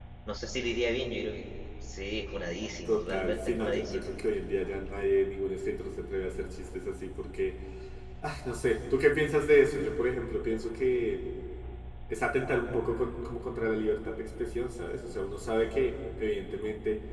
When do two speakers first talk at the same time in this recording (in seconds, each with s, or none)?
2.9 s